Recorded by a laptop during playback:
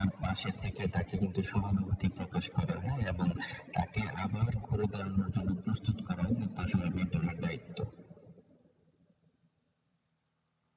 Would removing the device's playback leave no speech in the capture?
Yes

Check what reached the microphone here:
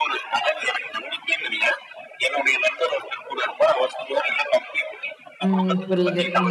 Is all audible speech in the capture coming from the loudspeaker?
No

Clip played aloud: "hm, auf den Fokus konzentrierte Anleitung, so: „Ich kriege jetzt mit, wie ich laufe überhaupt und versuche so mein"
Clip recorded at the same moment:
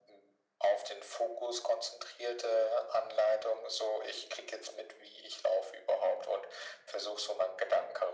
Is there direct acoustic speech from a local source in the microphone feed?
No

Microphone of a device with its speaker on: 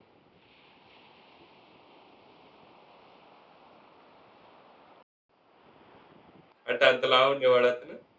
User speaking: Yes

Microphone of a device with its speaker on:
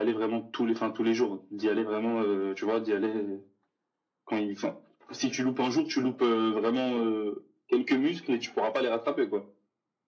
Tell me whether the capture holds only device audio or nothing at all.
Yes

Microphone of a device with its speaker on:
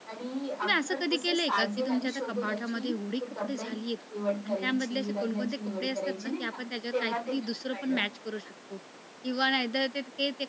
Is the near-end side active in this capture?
Yes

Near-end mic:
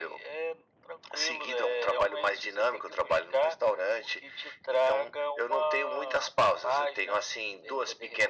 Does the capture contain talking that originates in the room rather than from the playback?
No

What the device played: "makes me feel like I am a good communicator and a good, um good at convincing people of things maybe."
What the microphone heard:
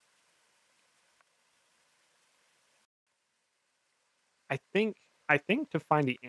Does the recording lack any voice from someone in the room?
No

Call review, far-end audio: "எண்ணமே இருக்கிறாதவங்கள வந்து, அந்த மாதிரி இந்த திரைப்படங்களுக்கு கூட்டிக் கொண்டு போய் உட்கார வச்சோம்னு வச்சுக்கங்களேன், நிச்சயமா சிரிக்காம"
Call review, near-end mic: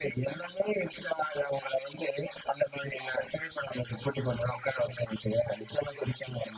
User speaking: No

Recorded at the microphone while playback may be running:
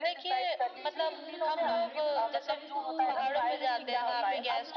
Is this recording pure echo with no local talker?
No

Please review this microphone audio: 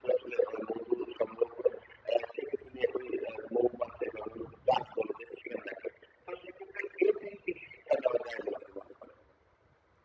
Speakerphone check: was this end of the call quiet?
Yes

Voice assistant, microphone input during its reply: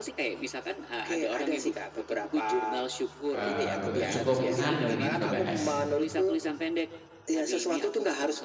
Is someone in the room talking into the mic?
Yes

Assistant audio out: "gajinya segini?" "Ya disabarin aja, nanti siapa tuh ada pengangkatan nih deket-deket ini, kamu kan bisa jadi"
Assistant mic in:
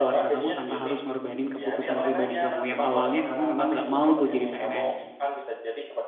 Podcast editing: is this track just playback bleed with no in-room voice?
No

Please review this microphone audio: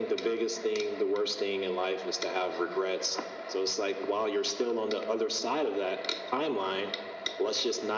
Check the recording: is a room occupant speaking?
No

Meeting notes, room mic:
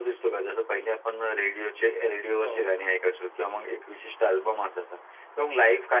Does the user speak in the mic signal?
Yes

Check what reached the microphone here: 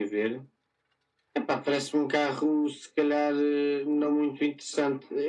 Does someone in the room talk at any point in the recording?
No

